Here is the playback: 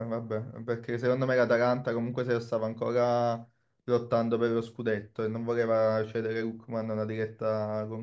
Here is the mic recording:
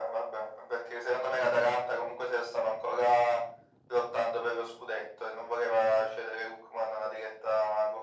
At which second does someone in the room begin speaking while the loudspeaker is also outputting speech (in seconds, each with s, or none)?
none